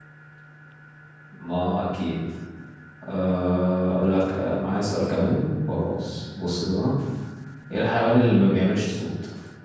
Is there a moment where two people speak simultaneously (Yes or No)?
No